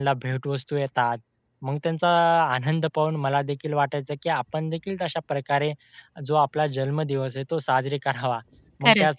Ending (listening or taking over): listening